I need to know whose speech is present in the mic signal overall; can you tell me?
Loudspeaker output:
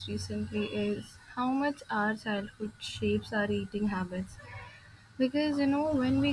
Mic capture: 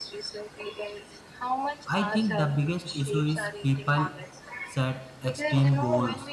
both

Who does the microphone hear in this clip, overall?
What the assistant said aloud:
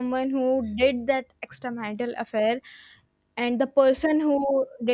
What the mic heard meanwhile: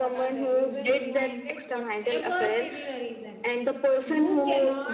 both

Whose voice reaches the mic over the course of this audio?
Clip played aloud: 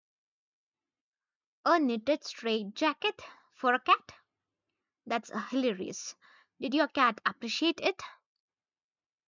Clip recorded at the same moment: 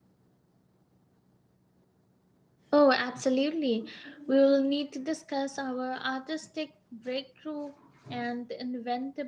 user only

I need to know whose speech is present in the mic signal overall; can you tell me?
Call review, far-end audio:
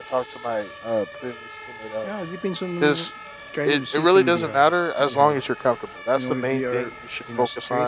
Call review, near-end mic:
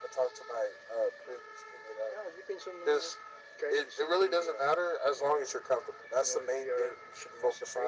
echo only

